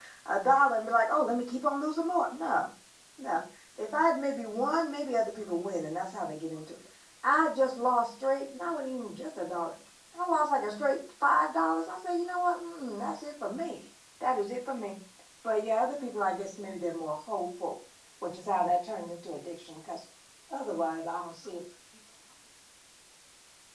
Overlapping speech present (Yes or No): No